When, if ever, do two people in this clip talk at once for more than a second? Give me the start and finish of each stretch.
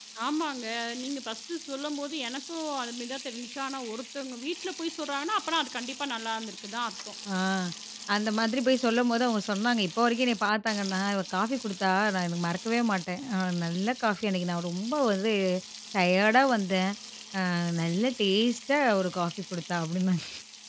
none

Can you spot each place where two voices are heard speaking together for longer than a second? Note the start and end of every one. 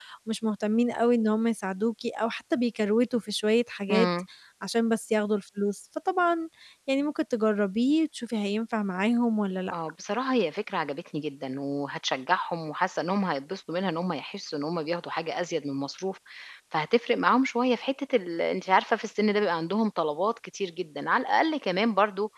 none

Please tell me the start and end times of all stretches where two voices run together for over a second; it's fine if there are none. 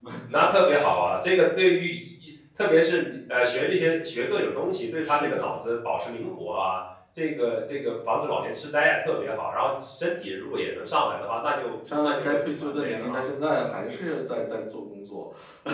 12.0-13.2

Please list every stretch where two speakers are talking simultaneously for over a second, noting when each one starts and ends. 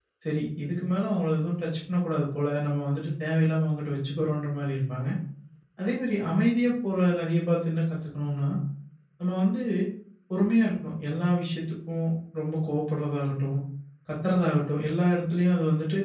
none

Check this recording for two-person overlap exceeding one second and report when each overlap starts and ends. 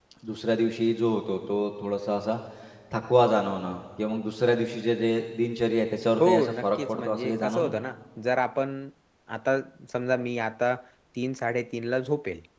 6.2-7.7

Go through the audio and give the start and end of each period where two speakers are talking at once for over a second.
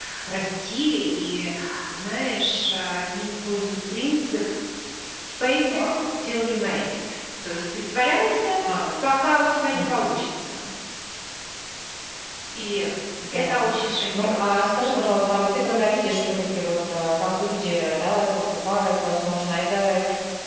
13.3-15.2

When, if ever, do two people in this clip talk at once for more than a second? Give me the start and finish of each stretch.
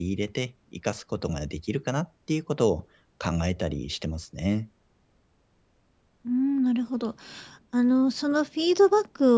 none

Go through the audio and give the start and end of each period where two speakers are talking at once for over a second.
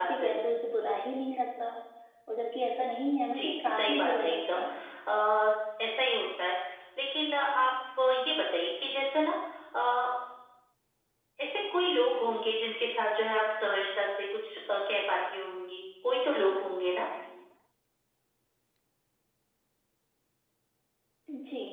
3.4-4.6

